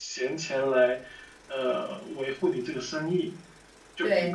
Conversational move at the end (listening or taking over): taking over